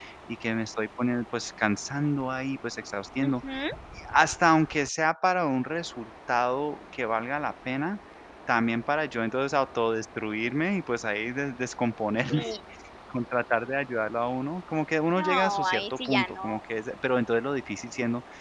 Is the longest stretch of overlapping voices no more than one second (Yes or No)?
No